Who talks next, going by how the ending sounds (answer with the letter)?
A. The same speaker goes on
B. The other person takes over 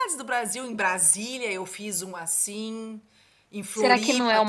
B